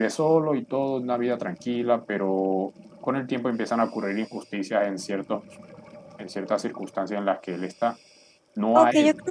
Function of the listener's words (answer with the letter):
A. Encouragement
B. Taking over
B